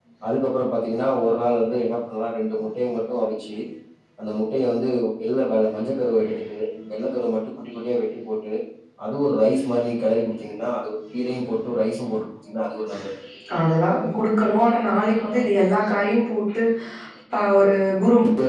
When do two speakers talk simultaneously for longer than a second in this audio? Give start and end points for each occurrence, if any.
none

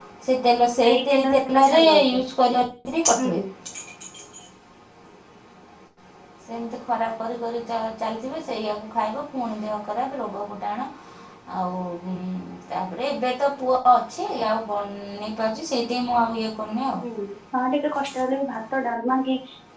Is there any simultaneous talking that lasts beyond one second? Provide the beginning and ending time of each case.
0.8-2.2

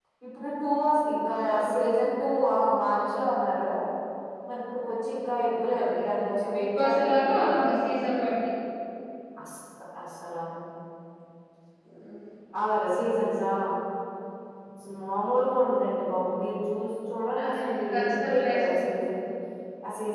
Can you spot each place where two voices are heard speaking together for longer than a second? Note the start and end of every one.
5.8-7.5, 17.4-19.1

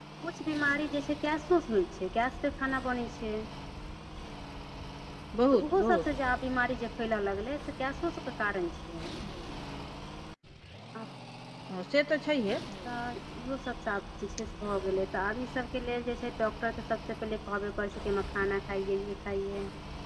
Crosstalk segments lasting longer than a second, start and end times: none

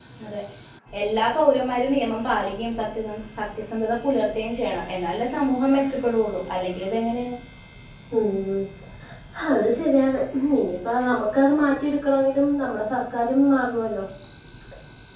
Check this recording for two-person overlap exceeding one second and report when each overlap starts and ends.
none

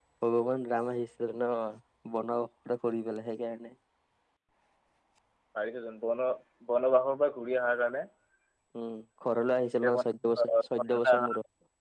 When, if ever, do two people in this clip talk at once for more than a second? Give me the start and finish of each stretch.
9.7-11.1

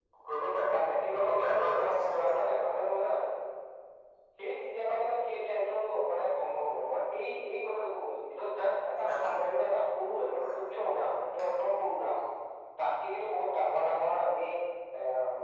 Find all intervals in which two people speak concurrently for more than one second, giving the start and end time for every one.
1.1-2.4

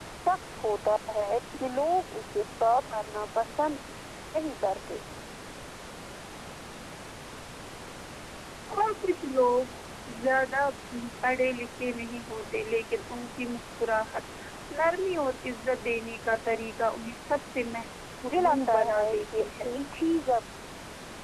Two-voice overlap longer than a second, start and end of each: 18.4-19.7

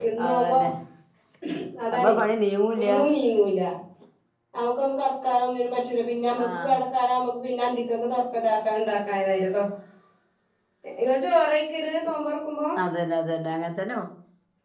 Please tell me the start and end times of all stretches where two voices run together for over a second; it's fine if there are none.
none

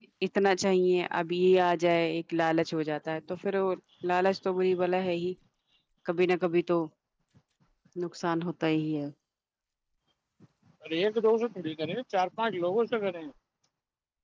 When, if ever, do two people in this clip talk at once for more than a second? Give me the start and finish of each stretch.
none

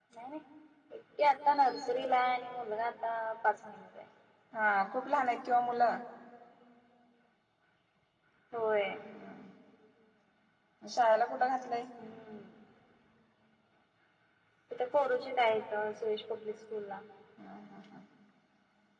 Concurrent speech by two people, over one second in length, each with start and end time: none

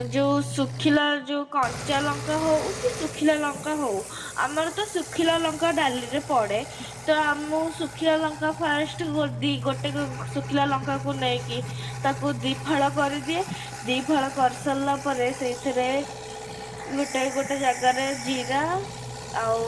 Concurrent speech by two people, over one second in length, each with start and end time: none

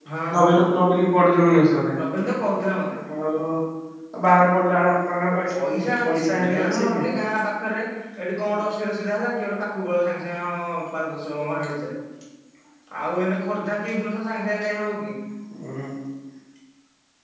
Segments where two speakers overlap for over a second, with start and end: 5.5-7.1

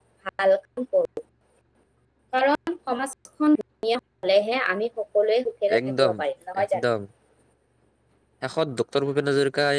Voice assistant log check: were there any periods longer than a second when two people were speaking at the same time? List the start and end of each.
none

